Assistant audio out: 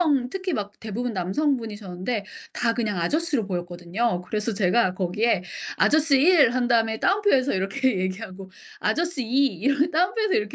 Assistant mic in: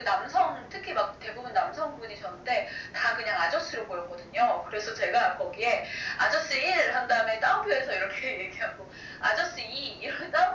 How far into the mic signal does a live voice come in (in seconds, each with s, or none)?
none